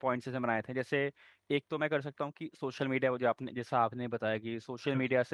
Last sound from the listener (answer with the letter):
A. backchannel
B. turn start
A